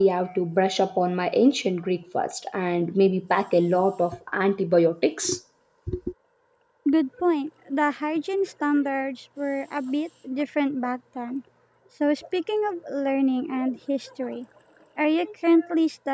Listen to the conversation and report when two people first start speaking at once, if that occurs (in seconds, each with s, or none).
none